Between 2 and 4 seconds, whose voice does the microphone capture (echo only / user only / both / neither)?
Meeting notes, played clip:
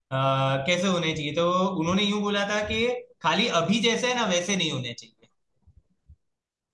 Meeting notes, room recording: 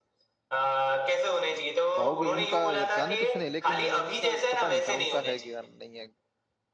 both